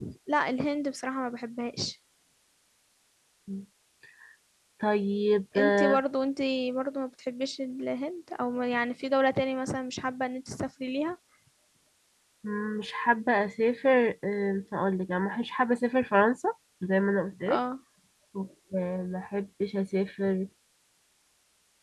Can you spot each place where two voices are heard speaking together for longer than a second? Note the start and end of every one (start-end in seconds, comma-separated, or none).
none